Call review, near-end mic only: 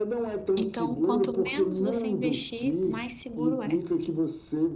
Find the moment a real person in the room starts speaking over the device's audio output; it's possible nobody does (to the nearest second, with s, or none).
1 s